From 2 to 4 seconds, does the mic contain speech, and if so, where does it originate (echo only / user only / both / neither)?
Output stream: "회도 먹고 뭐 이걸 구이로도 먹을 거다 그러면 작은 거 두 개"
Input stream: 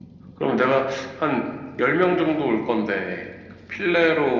user only